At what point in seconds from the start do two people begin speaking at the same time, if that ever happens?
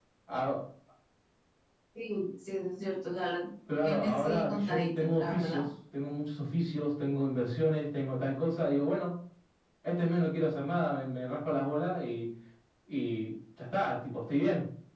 3.8 s

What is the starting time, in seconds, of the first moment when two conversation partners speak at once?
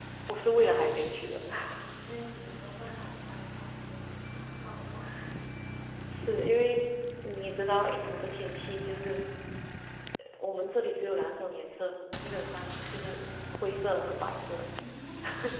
none

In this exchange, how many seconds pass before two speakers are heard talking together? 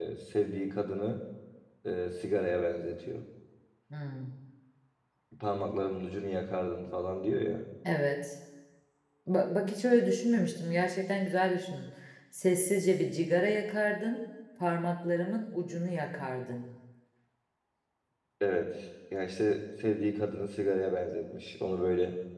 none

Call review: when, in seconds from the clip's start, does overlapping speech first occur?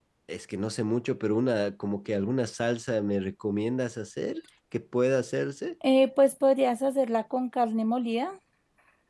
none

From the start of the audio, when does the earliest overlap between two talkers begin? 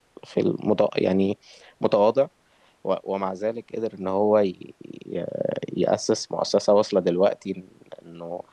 none

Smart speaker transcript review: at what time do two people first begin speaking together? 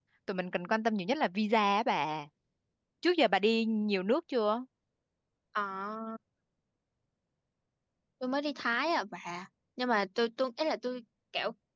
none

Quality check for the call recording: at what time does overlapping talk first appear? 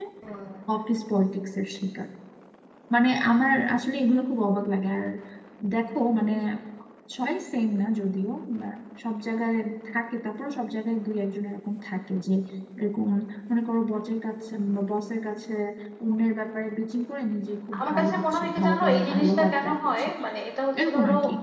17.8 s

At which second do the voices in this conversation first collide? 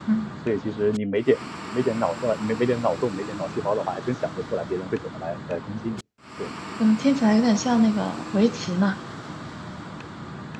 none

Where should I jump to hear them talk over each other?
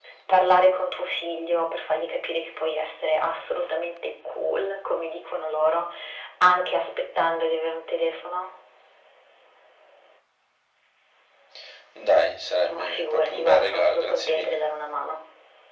12.7 s

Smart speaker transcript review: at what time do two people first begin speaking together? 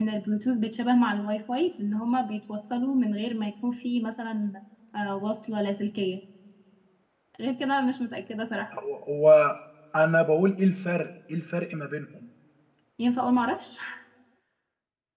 none

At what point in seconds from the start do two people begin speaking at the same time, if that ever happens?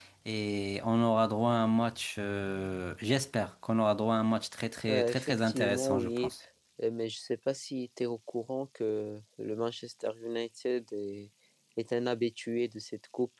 4.9 s

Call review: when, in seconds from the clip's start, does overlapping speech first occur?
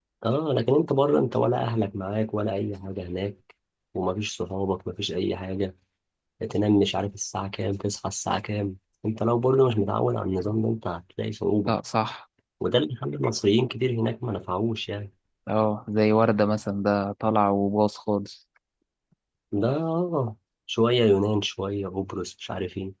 none

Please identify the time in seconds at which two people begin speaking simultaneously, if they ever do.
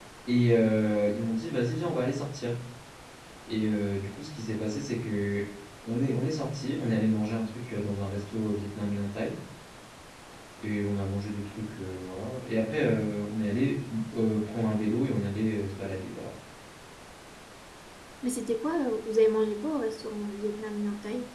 none

